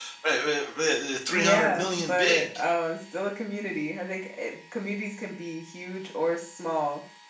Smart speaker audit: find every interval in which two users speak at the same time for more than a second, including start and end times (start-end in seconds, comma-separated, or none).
1.3-2.6